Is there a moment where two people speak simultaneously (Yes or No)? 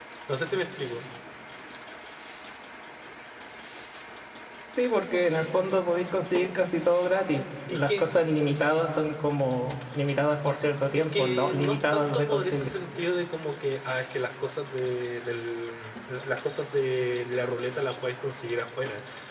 Yes